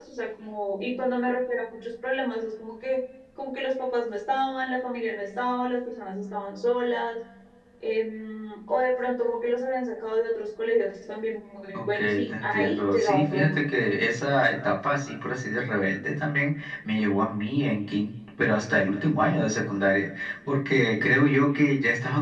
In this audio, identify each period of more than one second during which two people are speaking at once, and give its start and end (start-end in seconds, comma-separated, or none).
11.7-13.5